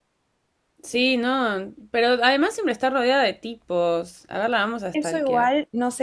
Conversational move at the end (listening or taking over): taking over